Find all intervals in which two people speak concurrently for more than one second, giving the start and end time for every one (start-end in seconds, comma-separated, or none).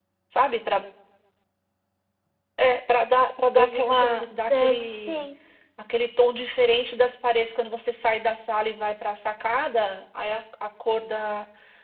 3.5-5.2